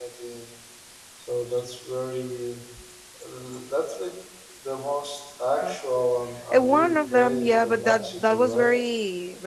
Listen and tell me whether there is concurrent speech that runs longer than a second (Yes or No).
Yes